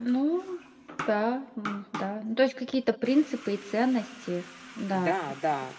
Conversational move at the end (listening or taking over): taking over